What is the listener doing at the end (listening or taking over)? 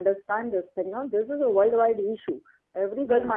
listening